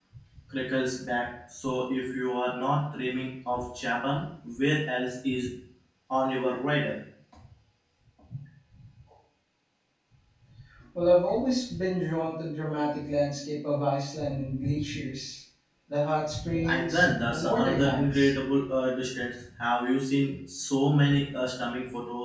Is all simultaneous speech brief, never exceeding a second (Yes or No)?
No